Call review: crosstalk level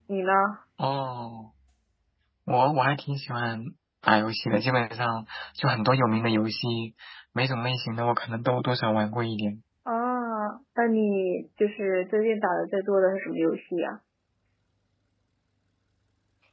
none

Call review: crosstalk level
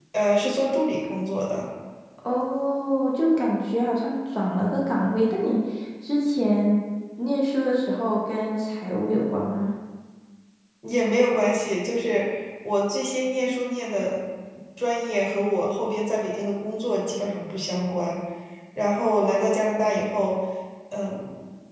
none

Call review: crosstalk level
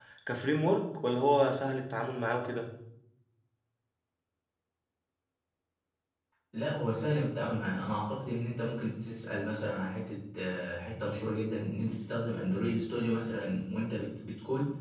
none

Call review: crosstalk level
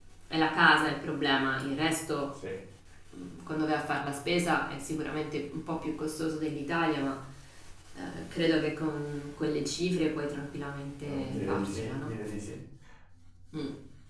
present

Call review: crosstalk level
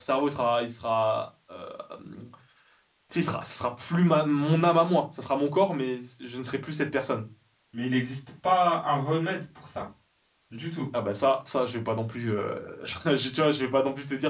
none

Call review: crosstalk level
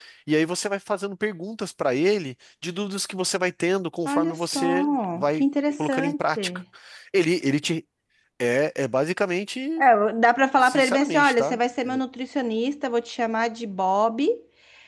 present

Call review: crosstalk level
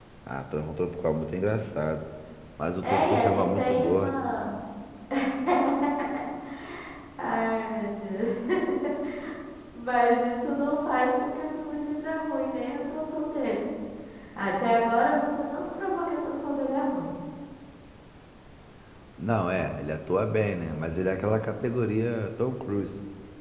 present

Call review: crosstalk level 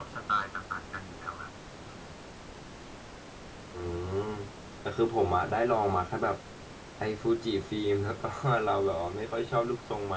none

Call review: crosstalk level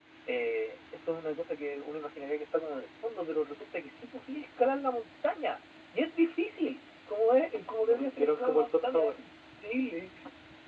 present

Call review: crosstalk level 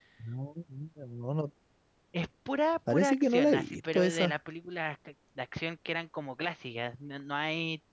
present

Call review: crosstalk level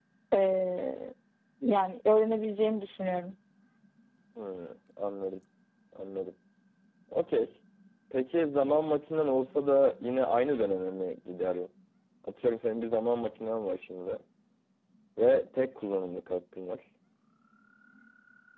none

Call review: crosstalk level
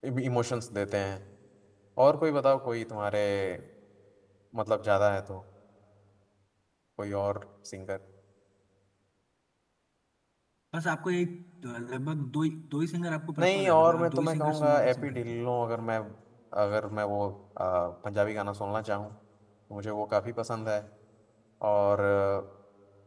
present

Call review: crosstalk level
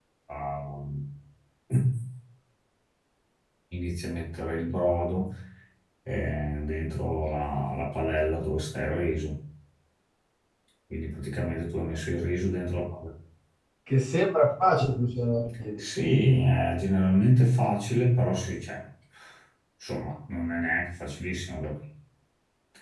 none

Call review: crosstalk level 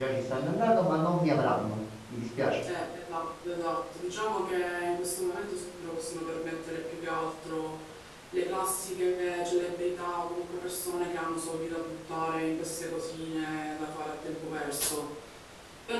none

